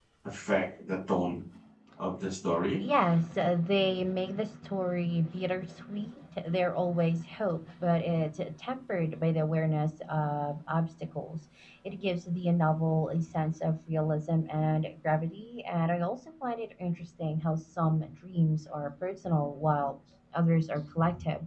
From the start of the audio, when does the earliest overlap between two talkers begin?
none

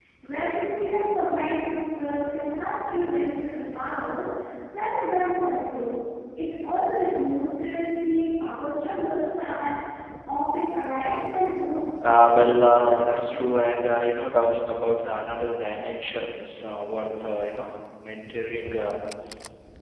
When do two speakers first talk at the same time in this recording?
12 s

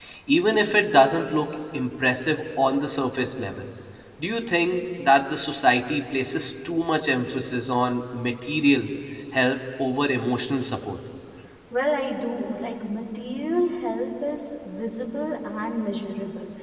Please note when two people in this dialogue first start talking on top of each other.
none

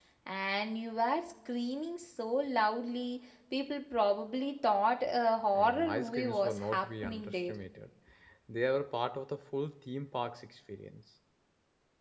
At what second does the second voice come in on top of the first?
6 s

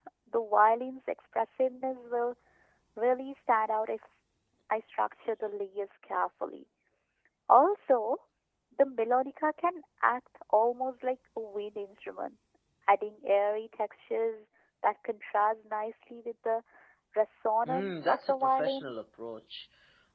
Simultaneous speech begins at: 18 s

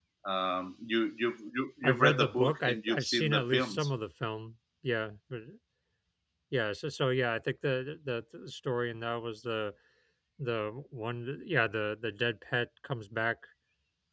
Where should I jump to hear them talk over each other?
2 s

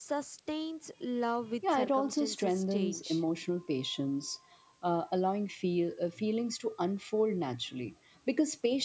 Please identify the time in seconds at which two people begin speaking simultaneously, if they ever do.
2 s

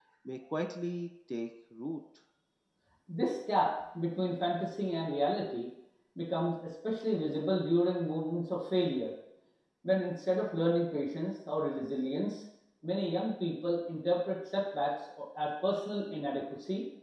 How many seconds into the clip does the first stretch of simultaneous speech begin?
none

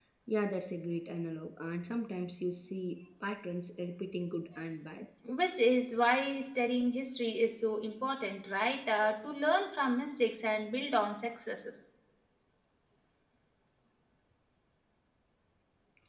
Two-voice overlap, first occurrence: none

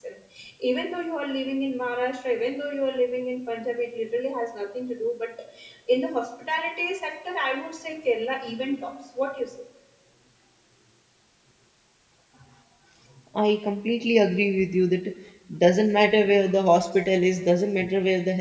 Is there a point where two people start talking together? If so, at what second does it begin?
none

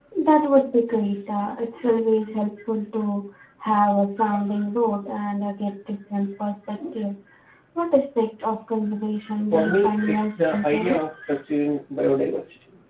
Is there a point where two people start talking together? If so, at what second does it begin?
10 s

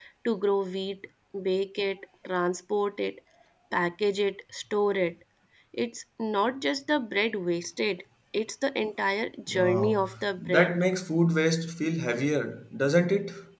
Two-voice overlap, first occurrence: 9 s

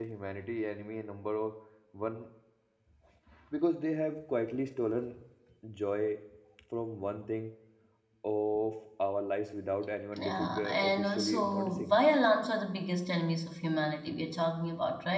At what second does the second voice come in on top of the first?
10 s

